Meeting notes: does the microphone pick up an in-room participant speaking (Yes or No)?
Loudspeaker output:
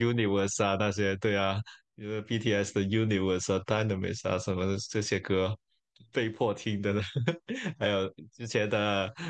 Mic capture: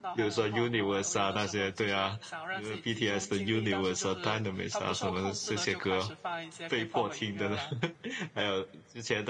Yes